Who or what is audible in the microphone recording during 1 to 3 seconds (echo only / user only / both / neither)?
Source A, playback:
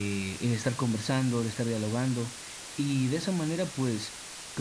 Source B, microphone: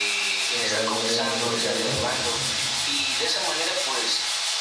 both